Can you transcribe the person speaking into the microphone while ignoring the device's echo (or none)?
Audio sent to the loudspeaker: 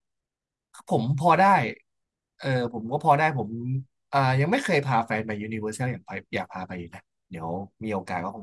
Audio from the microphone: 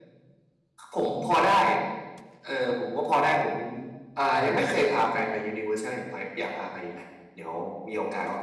อ่า